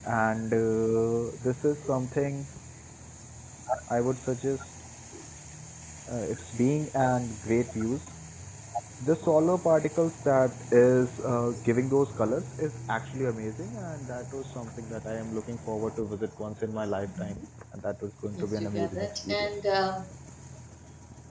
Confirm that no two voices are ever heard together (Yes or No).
No